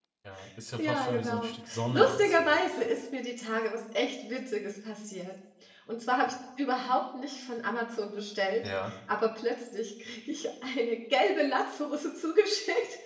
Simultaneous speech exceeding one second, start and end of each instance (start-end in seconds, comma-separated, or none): 0.8-2.6